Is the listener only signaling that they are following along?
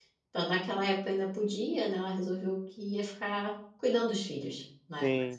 No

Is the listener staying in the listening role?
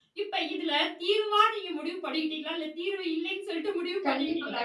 No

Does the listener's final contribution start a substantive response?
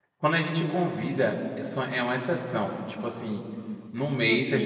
No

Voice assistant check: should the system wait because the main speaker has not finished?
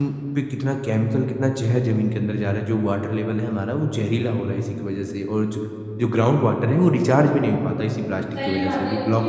No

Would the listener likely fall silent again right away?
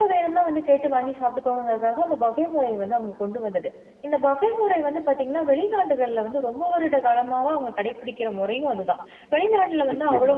Yes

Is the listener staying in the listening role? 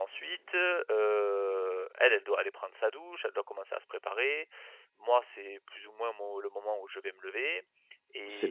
No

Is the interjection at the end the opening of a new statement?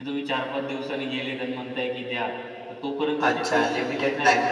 Yes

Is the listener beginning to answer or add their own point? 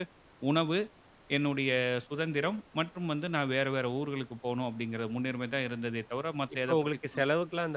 Yes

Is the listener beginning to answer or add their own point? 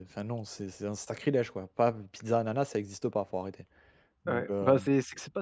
Yes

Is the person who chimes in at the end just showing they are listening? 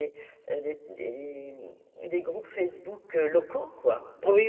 No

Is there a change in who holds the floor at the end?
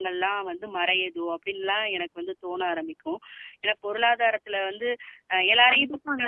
Yes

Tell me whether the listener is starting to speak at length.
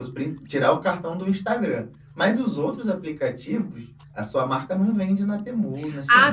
Yes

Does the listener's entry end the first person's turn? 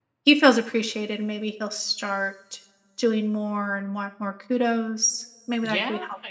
Yes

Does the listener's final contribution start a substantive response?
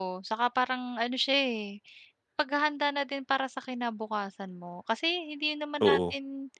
No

